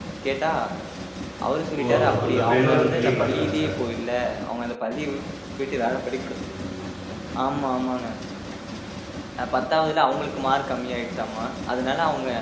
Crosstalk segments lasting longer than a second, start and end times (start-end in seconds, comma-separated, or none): 2.0-3.6